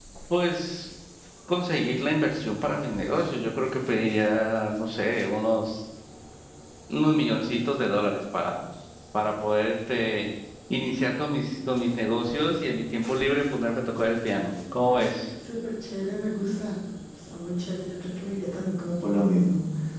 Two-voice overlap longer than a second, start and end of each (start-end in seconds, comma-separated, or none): none